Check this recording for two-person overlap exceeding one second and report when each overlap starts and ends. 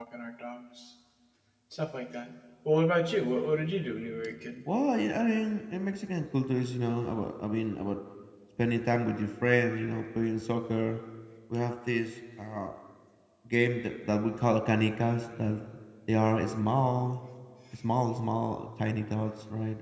none

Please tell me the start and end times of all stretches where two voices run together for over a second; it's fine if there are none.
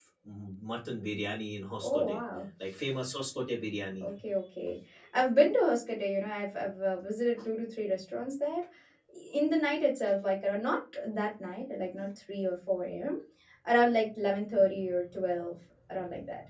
none

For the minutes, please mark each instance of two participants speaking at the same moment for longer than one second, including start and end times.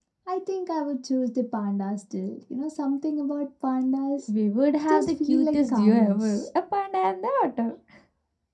4.9-6.5

